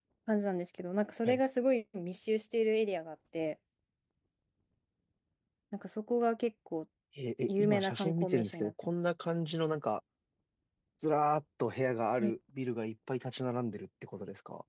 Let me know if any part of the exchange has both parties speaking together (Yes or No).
Yes